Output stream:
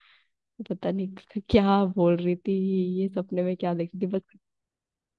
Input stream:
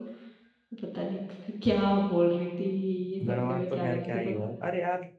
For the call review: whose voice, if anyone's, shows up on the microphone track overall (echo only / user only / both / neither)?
both